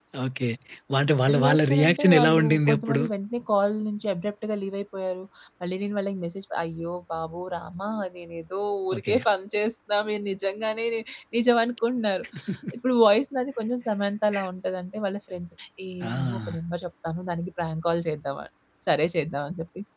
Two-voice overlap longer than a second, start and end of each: 1.4-3.0

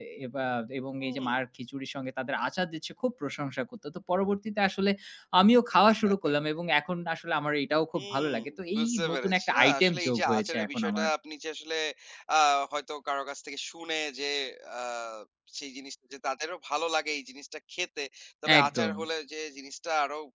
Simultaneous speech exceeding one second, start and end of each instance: 8.8-11.1

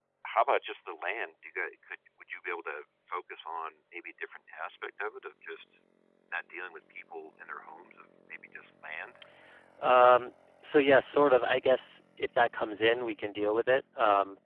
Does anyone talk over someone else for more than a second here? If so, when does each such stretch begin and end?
none

